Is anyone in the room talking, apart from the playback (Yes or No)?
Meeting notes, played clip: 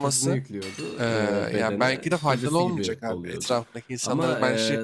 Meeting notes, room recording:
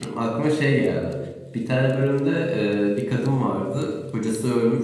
Yes